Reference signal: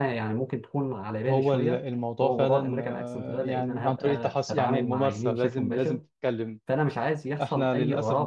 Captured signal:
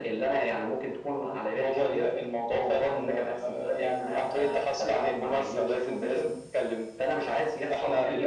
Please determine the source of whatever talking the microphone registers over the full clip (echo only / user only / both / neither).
echo only